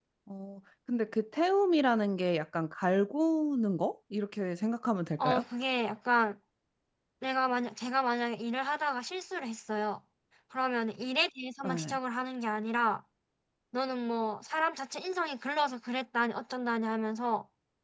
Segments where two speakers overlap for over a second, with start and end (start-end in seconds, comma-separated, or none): none